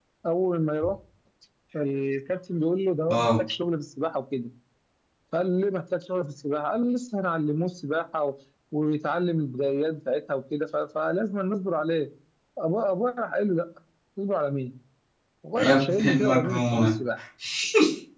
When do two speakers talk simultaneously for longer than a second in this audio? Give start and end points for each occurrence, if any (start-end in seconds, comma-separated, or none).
15.6-16.9